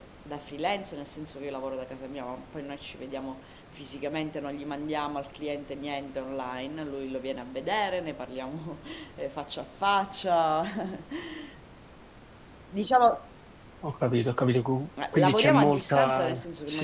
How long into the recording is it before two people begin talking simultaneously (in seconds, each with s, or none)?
15.0 s